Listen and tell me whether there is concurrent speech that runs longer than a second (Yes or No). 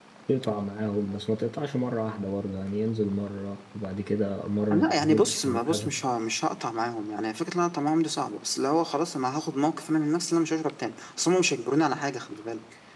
Yes